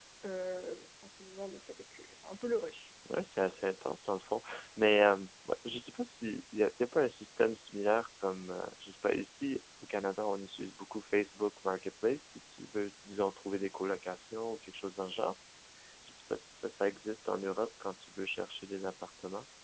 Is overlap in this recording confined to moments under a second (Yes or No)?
Yes